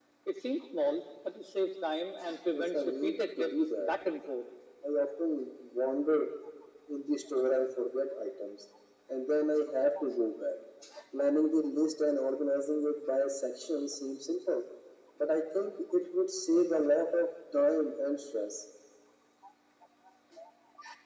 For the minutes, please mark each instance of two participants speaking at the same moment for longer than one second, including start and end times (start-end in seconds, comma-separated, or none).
2.5-3.9